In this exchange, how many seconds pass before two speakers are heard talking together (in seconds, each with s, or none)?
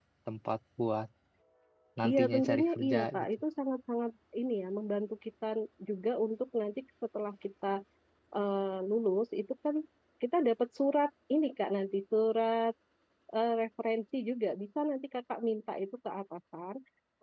2.0 s